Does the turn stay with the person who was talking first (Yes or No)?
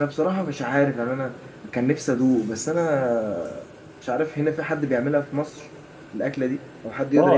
No